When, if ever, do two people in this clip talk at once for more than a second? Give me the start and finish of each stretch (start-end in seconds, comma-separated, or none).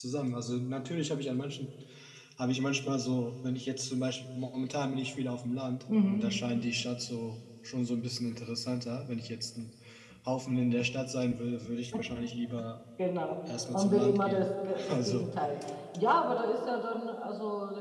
13.7-15.3